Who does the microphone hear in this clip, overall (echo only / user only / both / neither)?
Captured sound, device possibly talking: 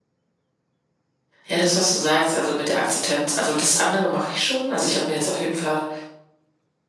user only